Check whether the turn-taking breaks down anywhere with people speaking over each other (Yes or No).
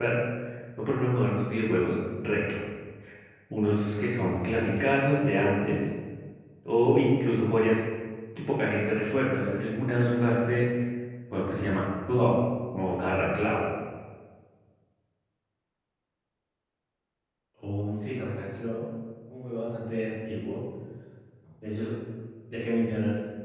No